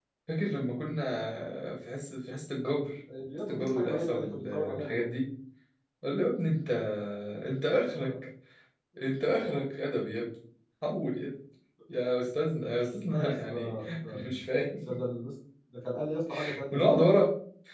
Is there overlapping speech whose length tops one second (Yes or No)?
Yes